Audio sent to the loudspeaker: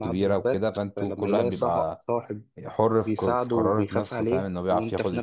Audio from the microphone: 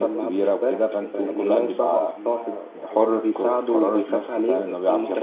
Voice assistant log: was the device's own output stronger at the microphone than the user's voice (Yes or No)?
Yes